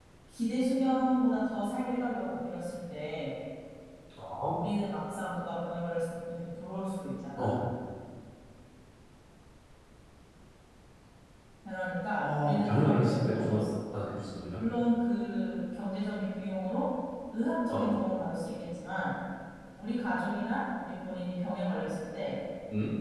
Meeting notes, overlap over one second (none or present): present